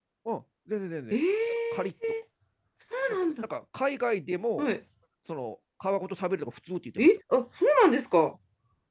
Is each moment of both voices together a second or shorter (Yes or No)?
Yes